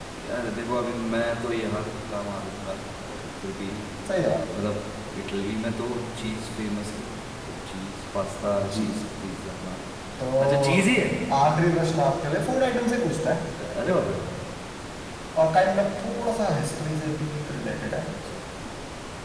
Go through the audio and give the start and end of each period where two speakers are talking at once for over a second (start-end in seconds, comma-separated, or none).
none